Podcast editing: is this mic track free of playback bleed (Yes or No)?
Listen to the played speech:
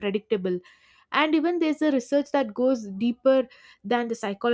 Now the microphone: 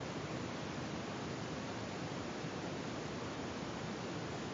Yes